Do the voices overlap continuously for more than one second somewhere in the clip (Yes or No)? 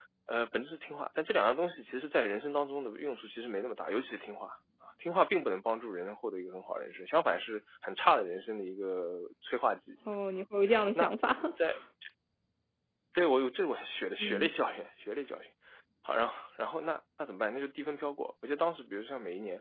No